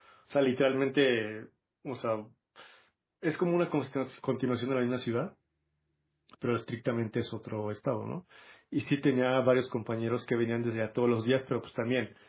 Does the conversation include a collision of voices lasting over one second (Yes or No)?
No